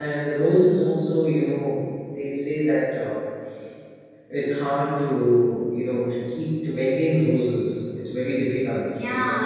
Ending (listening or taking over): taking over